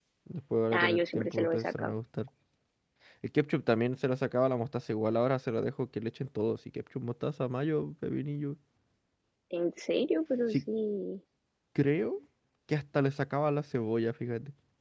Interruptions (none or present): present